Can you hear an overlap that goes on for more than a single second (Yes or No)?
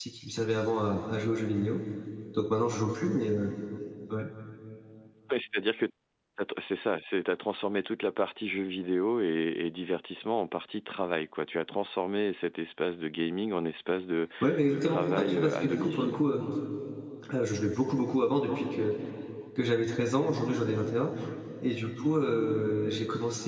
Yes